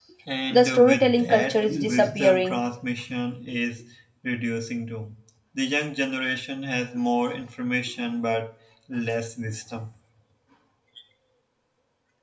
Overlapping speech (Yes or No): Yes